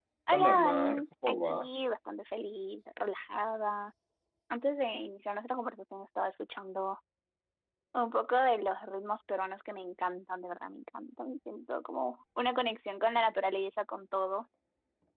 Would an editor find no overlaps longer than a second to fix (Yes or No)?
No